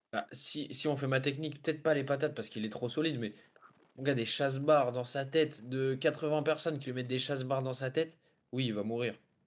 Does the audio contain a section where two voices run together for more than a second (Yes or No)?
No